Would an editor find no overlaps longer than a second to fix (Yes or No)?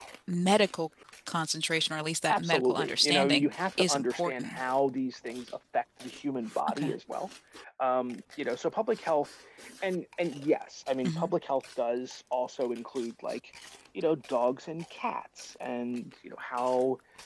No